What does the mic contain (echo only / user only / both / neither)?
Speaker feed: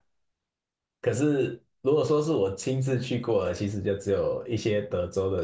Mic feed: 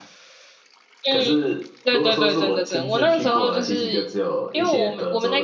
both